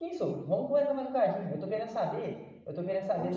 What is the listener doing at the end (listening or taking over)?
listening